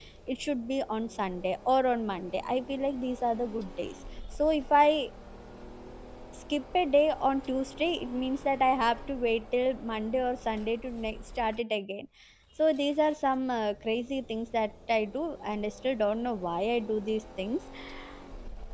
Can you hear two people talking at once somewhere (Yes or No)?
No